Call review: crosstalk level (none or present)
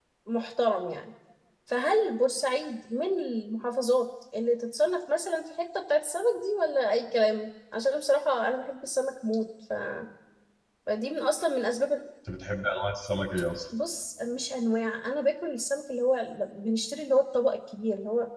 none